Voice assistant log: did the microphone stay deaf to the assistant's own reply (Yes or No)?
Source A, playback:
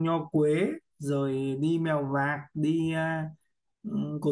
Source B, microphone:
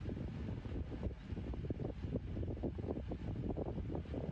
Yes